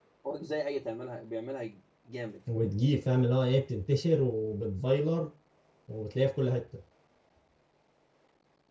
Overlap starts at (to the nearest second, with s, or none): none